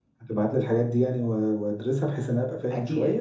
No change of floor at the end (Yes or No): No